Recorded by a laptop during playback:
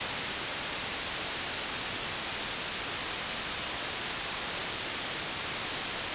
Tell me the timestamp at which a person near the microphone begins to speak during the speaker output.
none

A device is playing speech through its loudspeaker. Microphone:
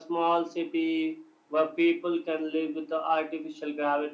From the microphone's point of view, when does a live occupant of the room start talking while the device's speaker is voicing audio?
none

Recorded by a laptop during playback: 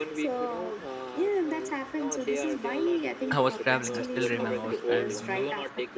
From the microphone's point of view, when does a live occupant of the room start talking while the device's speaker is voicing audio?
3 s

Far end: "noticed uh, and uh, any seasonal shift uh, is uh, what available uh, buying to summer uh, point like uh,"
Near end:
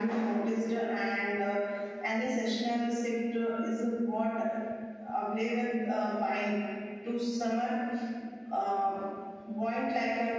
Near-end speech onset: none

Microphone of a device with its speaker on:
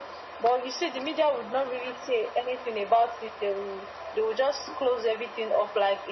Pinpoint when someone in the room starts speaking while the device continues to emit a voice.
none

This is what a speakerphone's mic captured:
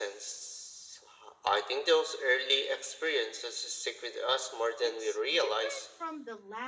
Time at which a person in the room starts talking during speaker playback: 5 s

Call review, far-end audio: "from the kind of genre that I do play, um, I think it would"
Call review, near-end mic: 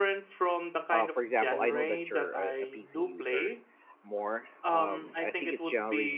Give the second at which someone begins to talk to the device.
1 s

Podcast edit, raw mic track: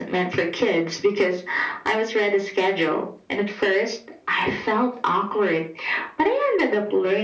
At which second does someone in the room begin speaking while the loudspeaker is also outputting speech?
none

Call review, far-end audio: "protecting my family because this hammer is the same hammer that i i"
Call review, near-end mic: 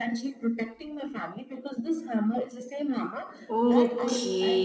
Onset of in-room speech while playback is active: 3 s

